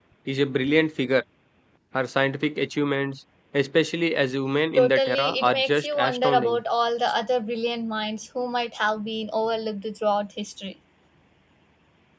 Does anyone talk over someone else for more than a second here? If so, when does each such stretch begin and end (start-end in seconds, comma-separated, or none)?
4.7-6.6